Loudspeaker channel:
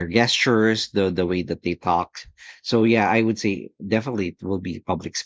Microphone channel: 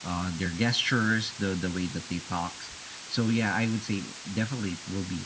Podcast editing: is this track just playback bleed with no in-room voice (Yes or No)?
Yes